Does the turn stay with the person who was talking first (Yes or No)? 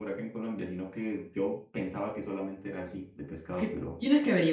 No